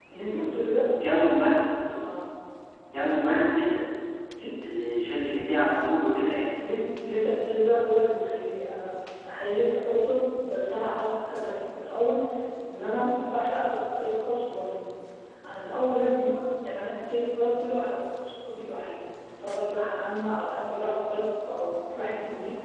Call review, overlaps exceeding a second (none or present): none